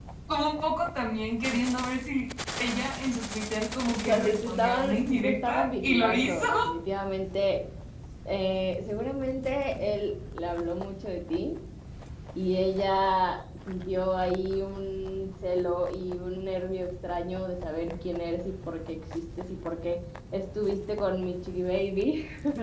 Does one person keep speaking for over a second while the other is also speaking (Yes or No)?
Yes